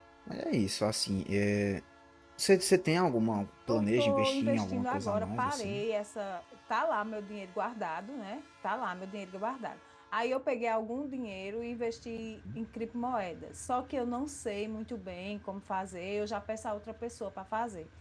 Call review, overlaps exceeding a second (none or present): present